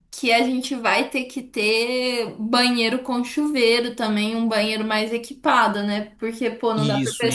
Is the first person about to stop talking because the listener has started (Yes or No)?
No